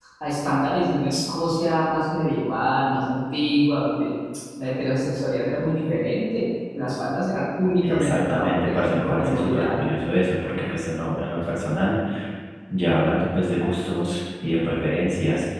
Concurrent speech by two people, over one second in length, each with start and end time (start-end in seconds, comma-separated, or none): 7.8-9.7